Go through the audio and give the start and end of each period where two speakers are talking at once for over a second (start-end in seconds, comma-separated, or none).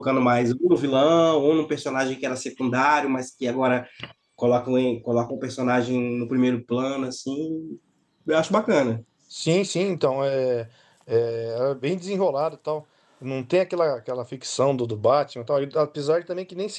none